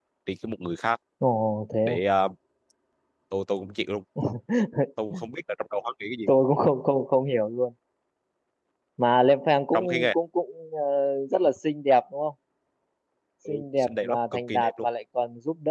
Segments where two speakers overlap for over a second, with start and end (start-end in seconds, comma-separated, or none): 13.5-14.9